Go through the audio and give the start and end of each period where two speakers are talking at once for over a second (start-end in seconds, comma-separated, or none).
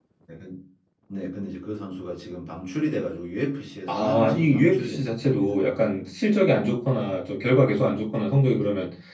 3.9-5.4